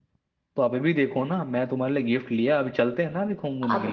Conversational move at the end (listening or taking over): taking over